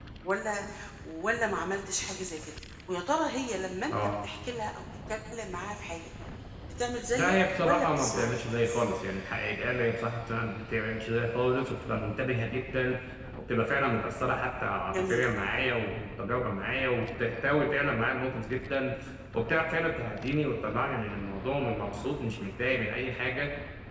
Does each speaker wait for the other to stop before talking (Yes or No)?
No